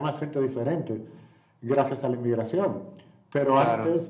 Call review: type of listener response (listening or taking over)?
listening